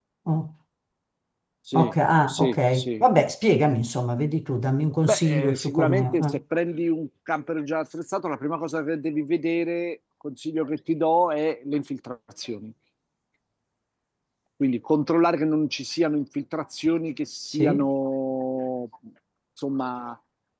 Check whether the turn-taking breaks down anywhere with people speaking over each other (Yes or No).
Yes